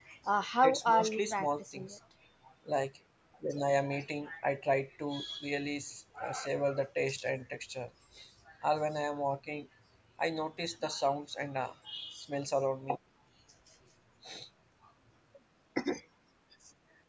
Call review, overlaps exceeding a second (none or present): present